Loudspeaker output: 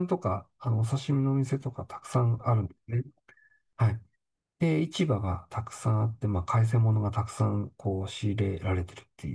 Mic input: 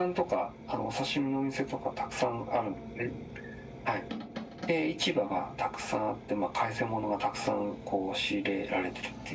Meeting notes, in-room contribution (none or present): none